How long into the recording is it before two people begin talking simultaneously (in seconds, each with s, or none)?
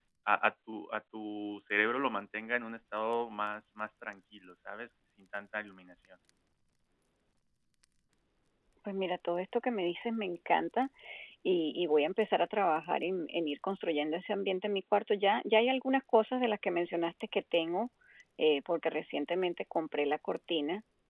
none